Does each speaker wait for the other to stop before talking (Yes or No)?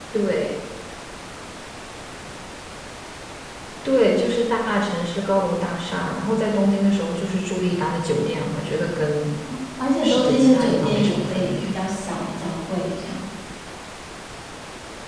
No